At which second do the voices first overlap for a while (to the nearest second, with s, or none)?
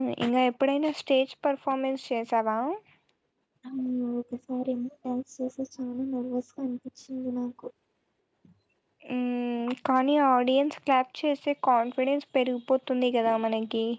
none